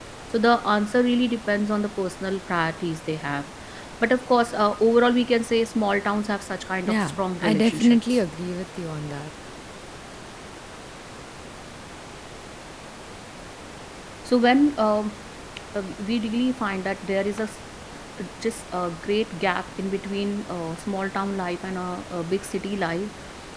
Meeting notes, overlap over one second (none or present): present